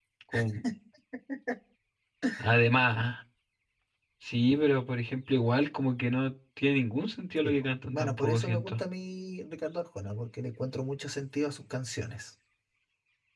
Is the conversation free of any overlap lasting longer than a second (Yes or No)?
No